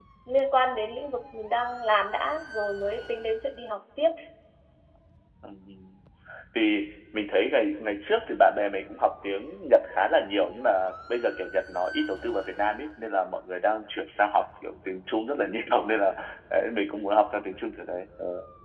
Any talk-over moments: No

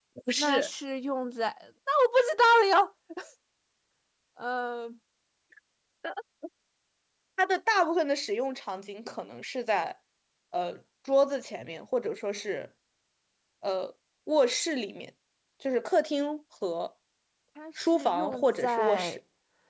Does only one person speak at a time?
No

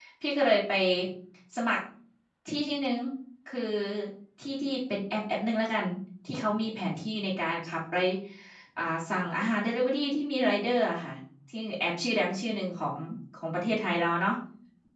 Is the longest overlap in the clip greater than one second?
No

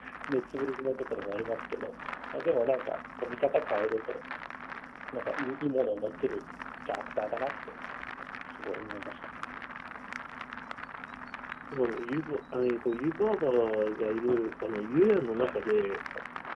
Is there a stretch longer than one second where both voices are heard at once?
No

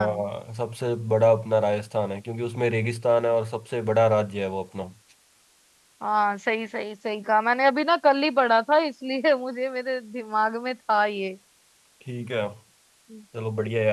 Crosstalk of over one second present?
No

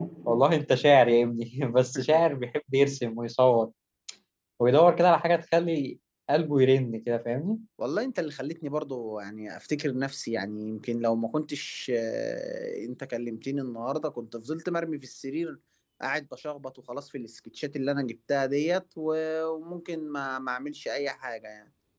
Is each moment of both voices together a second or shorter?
Yes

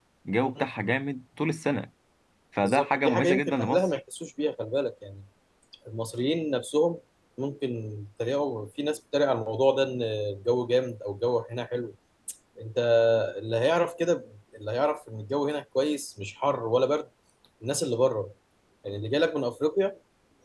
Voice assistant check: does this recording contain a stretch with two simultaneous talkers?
Yes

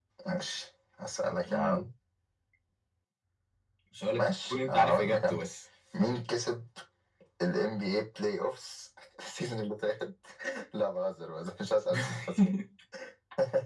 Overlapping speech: Yes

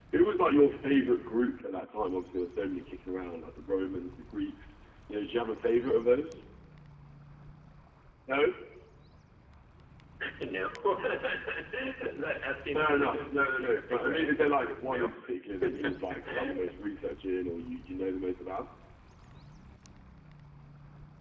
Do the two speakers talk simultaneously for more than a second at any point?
Yes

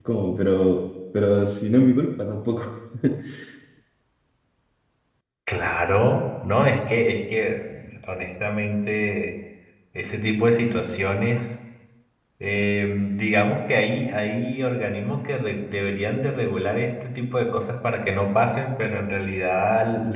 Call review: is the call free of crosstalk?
Yes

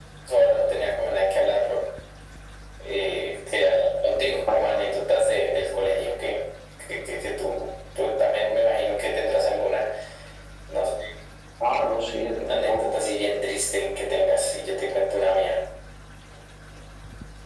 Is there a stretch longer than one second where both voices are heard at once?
No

